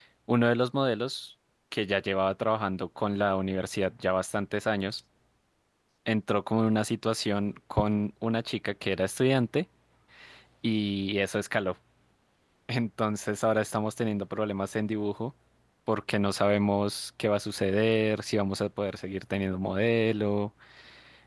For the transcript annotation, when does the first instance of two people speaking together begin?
none

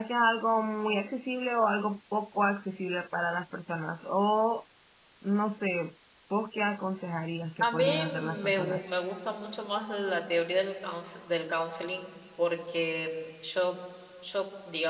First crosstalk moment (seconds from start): 7.6 s

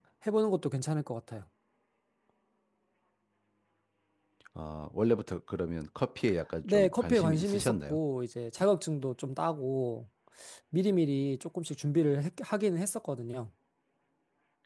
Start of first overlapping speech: 6.6 s

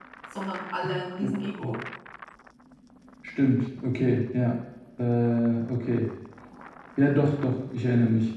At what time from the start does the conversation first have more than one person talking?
none

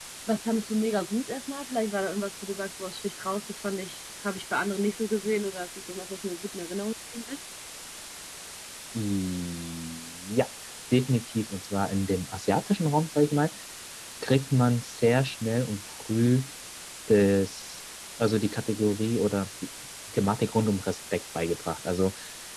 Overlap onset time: none

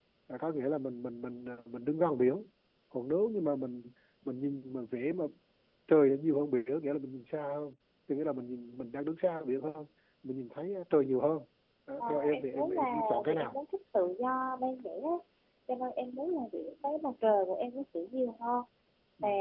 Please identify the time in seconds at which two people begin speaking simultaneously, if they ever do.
12.0 s

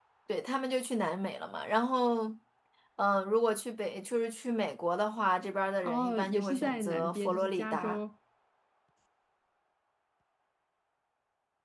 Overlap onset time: 5.8 s

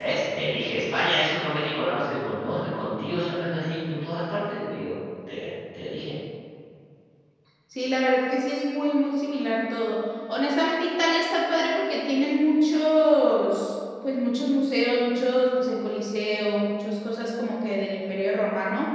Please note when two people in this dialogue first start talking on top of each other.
none

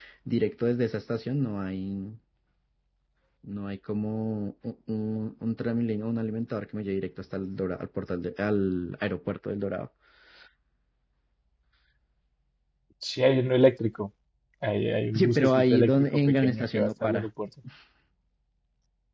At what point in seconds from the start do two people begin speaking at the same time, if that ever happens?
15.1 s

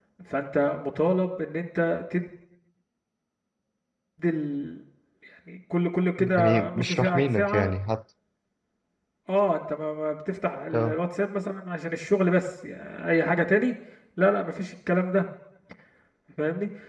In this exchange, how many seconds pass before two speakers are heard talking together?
6.4 s

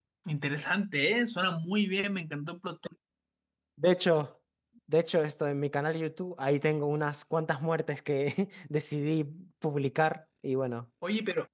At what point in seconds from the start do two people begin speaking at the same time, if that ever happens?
none

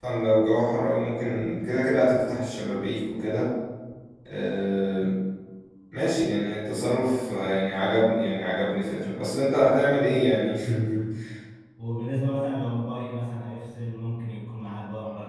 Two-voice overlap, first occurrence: none

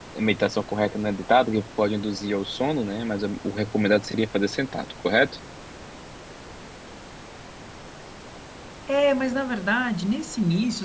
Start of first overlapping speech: none

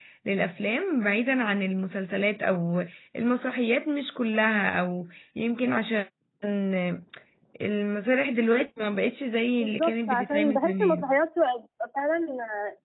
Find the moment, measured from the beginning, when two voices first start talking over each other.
9.6 s

